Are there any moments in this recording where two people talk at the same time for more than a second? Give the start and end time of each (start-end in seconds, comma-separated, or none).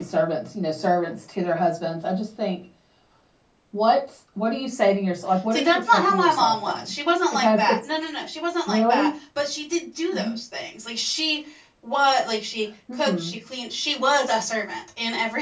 5.5-6.8